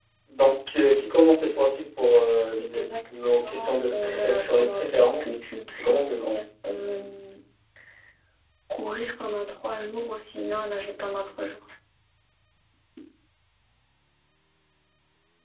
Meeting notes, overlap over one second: present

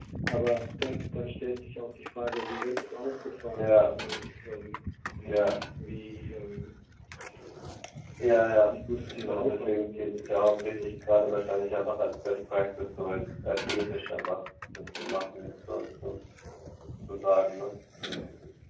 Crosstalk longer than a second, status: present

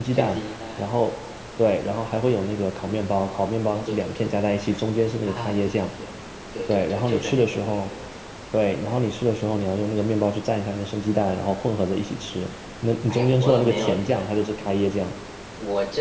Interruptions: present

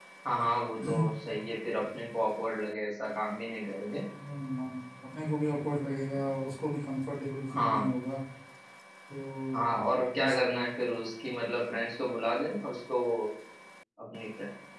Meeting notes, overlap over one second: none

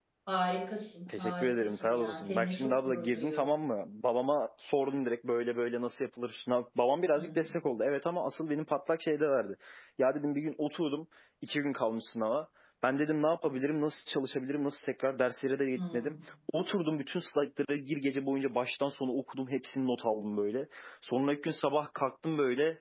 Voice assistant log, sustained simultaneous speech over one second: present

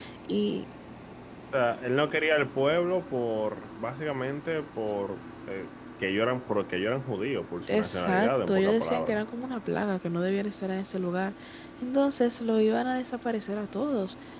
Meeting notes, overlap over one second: present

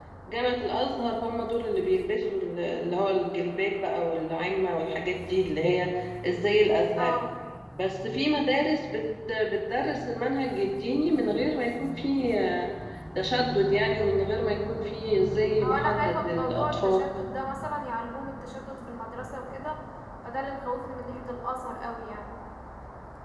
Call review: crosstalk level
present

